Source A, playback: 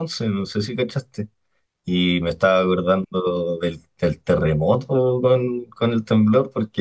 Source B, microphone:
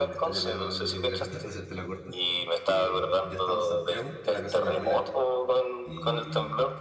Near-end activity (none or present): present